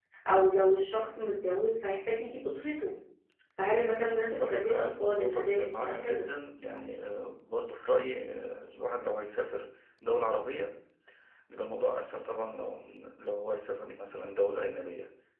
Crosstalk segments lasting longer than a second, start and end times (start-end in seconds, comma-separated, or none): 4.3-6.3